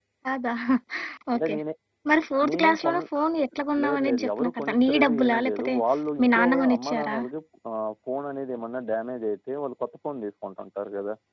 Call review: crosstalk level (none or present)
present